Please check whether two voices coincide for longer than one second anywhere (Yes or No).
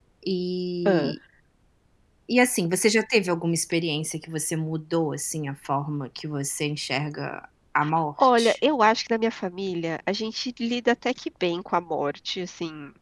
No